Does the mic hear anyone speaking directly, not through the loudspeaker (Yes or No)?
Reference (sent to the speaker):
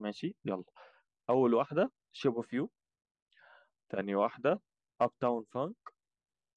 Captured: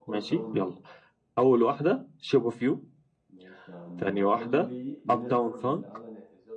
Yes